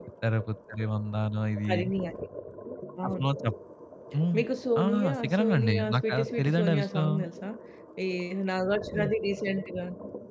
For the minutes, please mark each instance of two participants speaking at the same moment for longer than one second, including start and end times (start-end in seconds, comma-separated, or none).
4.8-7.2